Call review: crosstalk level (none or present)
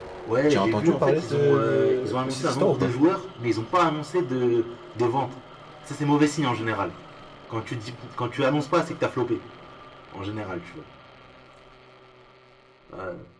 present